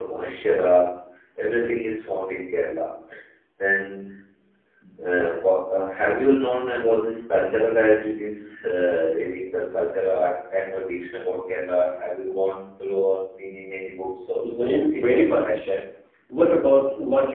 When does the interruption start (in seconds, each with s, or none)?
14.4 s